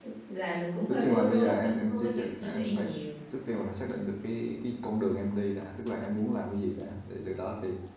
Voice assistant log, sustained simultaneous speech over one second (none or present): present